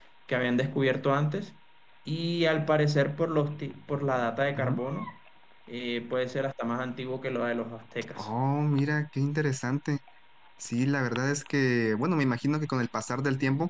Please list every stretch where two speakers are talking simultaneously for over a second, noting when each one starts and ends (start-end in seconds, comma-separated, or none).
none